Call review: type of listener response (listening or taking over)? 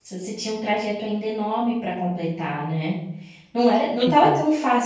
listening